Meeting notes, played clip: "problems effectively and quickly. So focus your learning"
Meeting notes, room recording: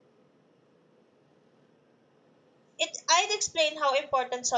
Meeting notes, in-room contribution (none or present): present